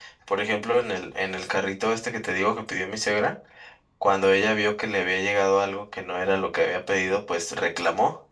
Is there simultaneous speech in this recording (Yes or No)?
No